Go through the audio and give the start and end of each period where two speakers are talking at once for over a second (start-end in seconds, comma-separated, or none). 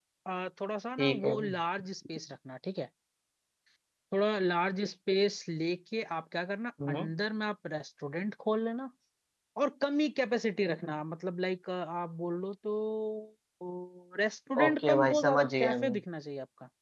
14.6-15.9